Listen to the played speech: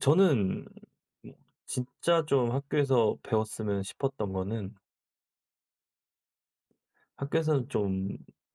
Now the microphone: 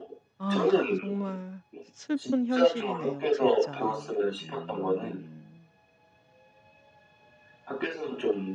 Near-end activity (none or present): present